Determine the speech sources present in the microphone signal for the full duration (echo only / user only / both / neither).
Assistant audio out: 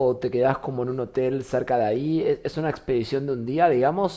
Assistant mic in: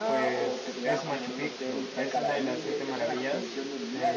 both